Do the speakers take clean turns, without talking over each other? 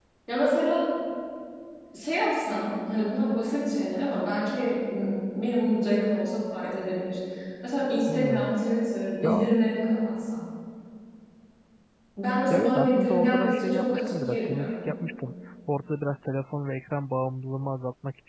No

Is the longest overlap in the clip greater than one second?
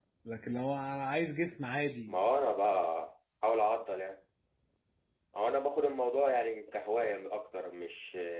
No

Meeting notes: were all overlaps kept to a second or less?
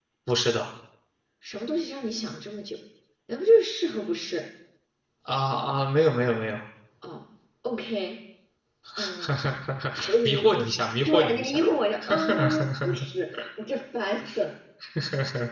No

